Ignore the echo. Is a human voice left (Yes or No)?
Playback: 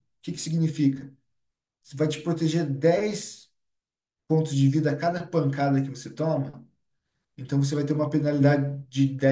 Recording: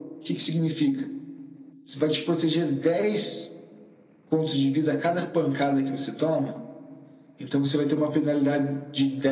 No